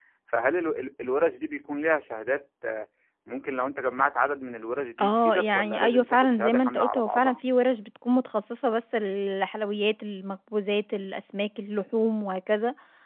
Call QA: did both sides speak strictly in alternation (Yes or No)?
No